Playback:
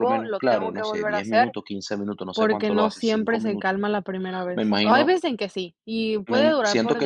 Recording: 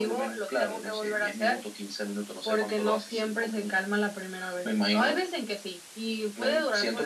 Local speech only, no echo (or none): none